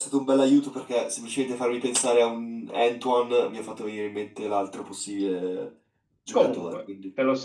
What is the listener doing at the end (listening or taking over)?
taking over